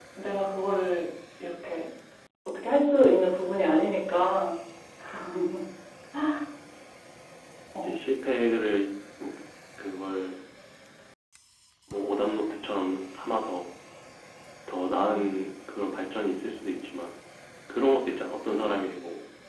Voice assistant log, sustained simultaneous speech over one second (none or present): none